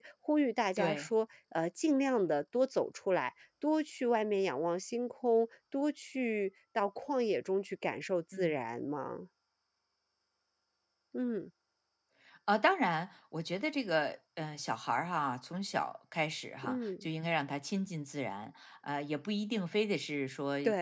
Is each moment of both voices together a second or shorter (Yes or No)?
Yes